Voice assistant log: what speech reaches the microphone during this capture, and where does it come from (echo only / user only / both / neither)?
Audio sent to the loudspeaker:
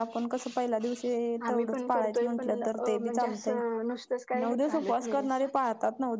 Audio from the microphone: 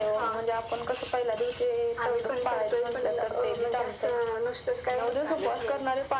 echo only